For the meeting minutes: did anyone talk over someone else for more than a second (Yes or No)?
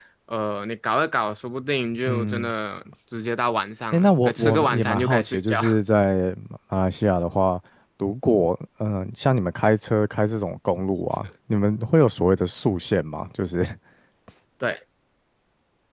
Yes